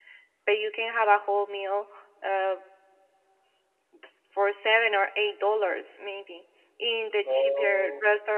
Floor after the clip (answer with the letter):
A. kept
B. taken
A